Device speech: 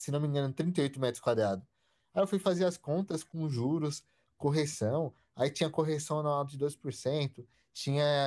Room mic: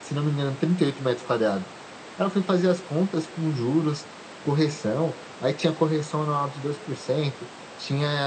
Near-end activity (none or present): none